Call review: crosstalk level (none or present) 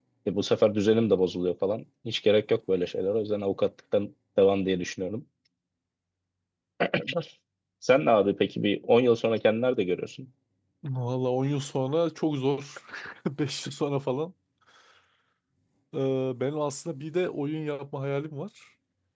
none